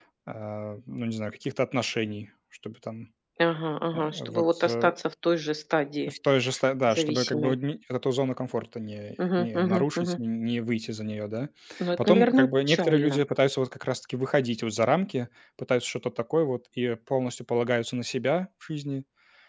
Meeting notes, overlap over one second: present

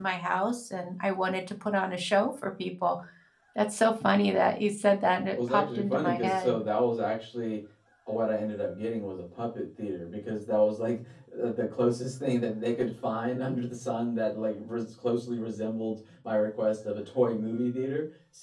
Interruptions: present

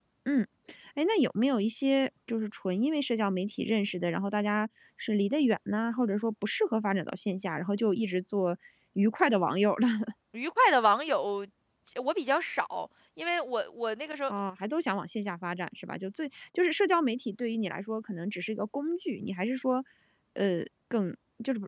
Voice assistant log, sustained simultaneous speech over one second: none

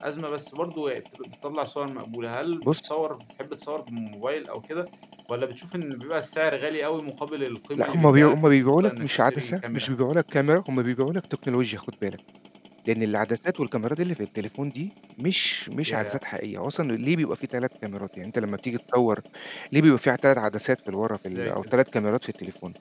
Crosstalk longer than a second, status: present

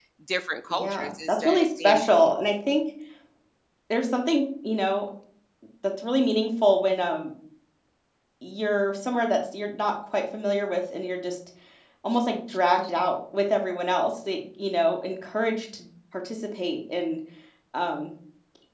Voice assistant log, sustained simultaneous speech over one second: present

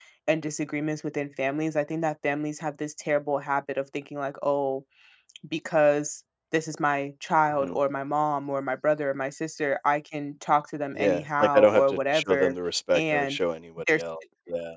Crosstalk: present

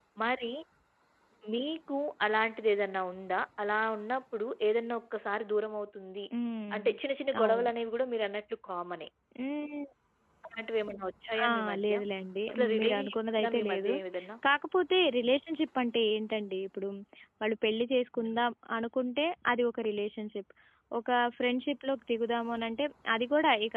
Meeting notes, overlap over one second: present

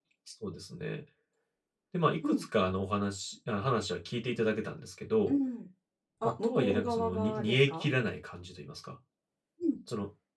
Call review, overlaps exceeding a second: present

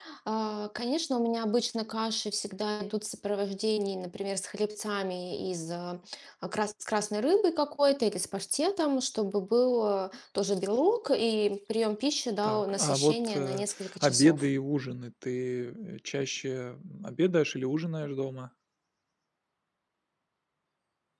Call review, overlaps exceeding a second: present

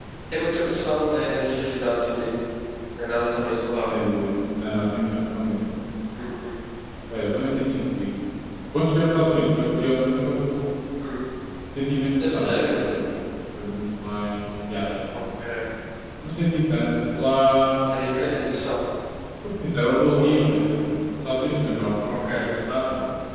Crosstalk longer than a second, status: none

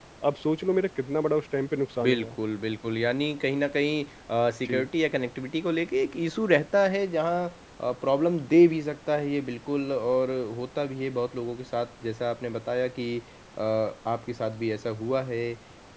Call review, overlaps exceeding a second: none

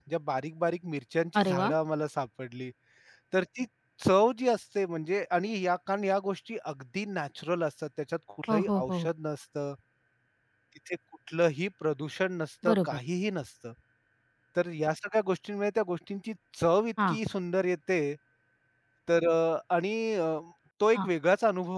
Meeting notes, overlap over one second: none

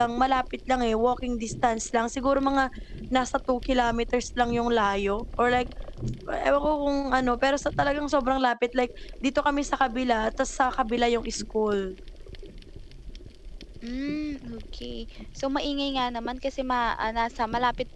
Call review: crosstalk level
none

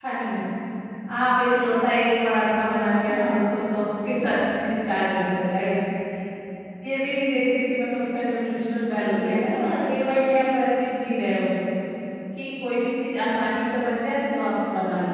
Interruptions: present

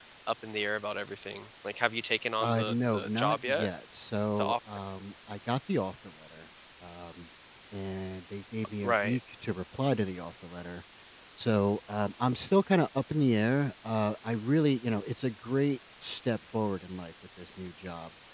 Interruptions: present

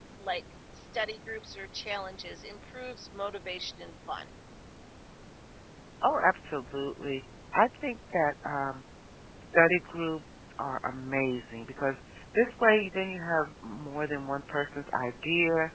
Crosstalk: none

